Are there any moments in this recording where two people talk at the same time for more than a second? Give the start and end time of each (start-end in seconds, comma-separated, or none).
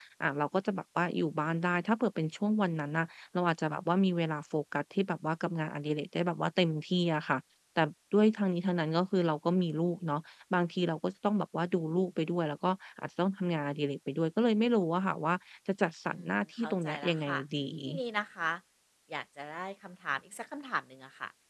16.1-17.4